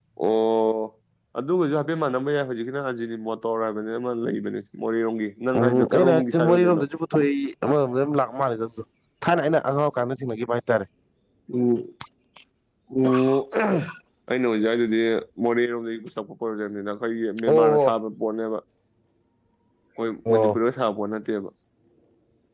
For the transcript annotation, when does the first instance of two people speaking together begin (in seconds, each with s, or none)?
5.6 s